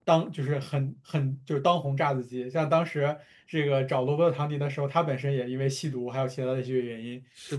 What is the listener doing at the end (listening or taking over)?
listening